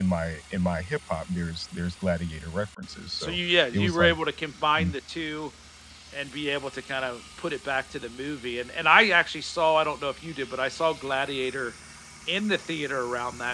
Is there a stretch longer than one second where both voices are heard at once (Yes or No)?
No